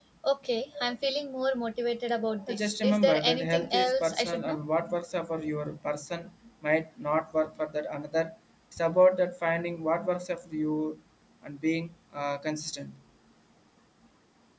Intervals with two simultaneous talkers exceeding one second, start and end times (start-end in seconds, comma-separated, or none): 2.5-4.6